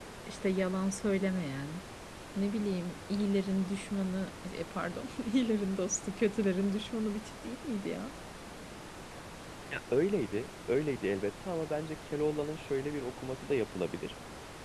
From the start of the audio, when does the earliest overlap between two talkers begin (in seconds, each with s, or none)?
none